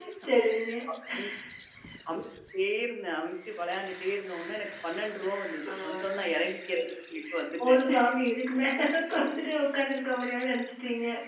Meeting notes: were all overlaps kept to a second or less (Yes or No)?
Yes